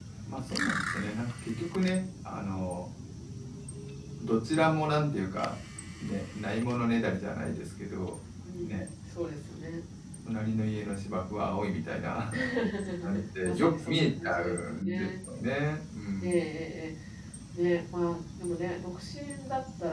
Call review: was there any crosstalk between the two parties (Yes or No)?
Yes